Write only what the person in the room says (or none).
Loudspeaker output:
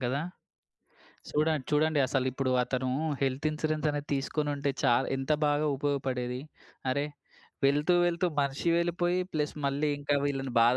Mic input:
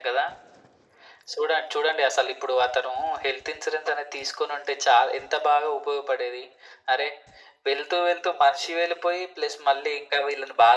none